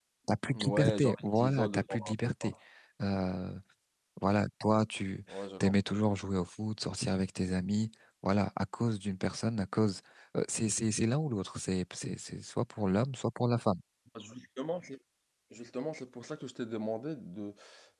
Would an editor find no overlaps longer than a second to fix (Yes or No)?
No